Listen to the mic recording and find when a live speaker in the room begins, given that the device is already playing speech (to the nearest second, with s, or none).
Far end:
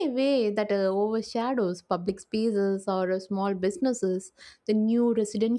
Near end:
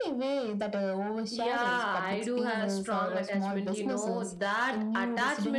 1 s